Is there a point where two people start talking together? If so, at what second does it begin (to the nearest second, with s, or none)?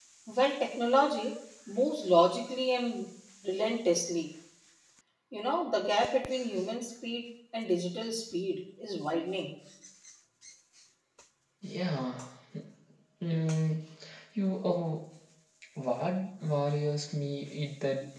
none